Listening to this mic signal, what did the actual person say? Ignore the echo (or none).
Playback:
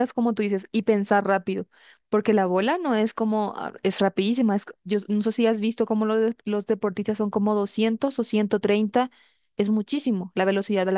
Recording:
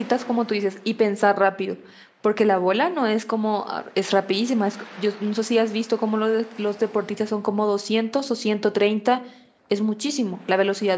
none